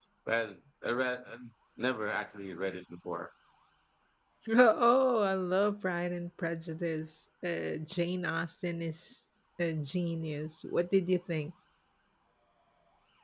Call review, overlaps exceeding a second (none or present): none